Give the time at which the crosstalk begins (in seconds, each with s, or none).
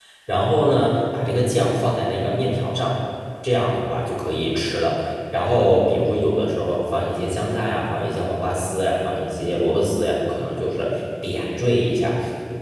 none